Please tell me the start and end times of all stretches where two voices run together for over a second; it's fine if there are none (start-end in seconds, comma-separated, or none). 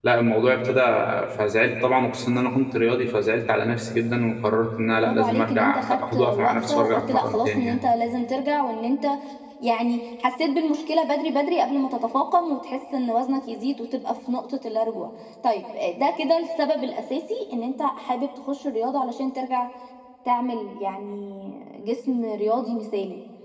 4.9-7.8